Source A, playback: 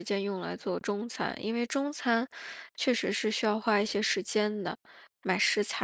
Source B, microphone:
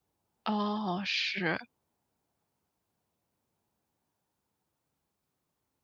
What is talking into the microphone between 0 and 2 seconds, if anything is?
user only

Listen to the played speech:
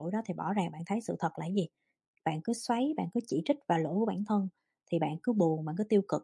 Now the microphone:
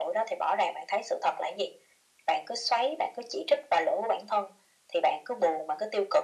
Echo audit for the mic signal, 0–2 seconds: echo only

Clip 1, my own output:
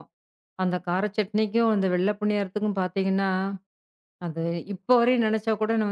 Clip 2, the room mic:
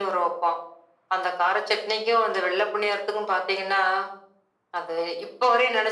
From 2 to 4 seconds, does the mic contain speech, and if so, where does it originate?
echo only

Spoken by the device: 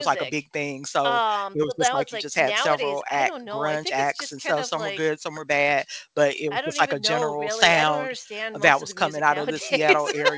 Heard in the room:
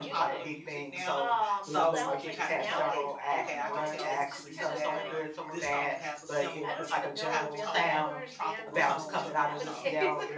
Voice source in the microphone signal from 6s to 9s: both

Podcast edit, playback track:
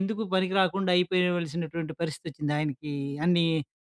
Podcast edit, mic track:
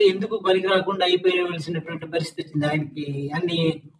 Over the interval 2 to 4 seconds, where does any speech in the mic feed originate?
echo only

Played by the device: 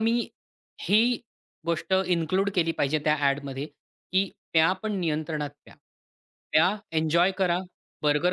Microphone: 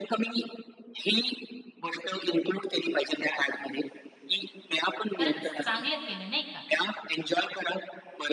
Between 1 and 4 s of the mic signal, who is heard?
echo only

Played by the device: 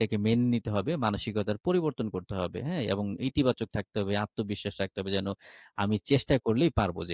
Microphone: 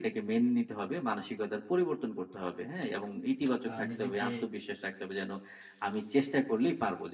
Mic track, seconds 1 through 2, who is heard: echo only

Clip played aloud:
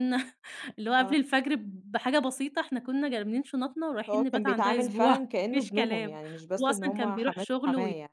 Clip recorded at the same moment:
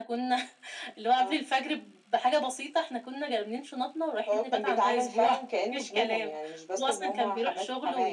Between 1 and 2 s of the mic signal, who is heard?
echo only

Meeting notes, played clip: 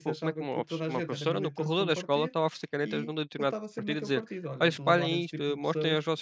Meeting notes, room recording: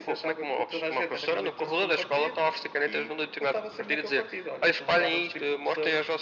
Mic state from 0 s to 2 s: echo only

